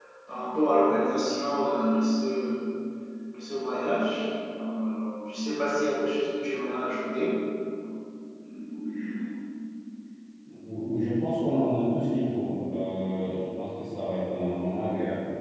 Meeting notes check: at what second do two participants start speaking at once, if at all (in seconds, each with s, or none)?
none